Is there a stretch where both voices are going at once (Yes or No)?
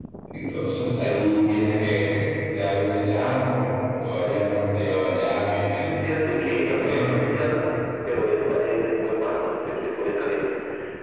Yes